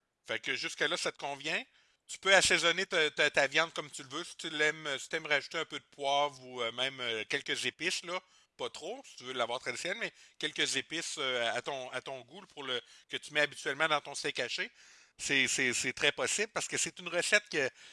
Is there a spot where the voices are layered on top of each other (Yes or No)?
No